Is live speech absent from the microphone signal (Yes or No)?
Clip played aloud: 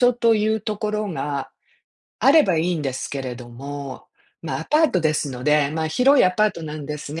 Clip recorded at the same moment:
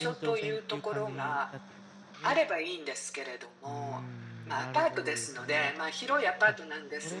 No